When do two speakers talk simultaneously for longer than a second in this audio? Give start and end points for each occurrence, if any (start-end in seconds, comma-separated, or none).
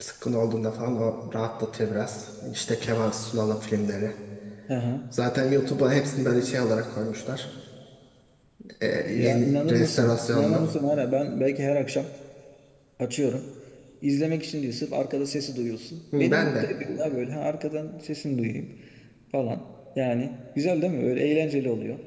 9.0-10.6